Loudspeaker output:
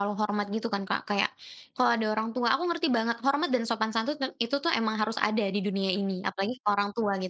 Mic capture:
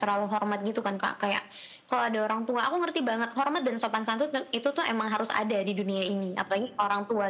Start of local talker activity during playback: none

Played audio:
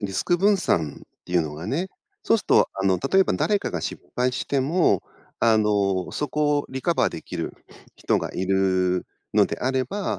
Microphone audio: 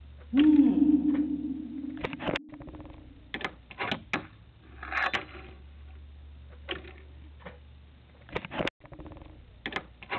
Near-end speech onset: 0.3 s

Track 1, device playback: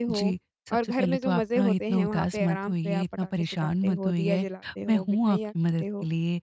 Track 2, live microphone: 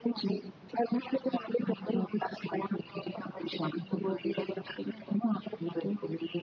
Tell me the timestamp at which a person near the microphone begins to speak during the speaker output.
none

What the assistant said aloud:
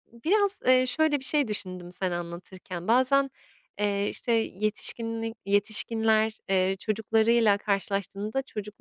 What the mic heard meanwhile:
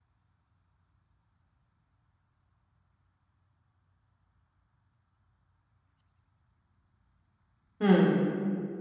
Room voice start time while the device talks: 7.8 s

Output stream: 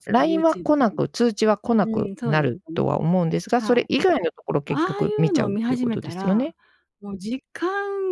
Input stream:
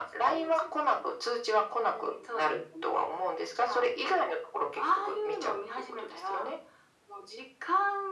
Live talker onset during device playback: none

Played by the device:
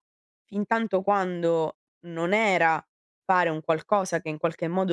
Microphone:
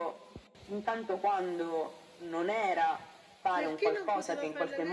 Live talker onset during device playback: 3.5 s

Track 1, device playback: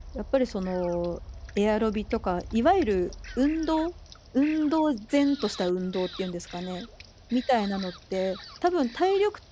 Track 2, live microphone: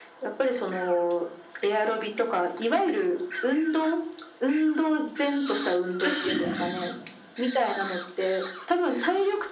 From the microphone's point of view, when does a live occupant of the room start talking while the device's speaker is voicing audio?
6.0 s

